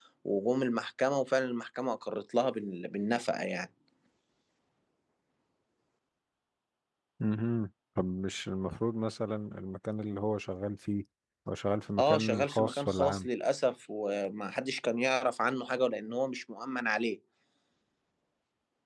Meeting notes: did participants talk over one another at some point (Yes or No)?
Yes